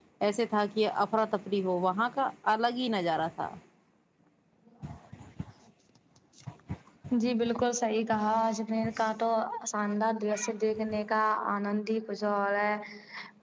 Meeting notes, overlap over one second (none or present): none